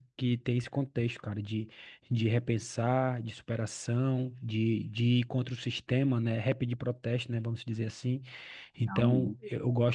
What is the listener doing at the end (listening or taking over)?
listening